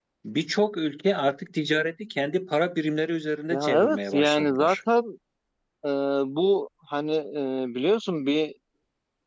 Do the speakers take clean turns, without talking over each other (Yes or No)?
No